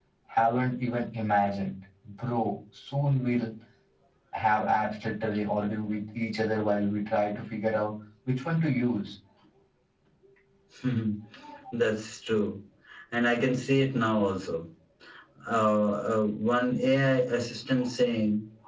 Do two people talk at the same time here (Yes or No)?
No